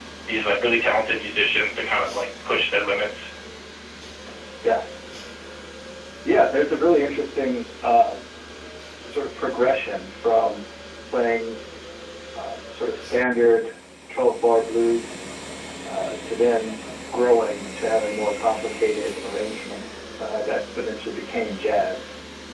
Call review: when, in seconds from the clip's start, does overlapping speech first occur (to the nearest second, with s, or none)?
none